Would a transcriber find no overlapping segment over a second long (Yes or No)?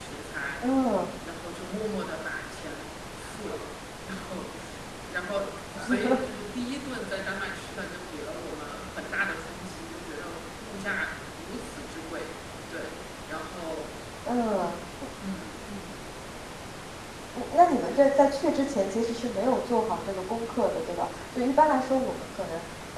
Yes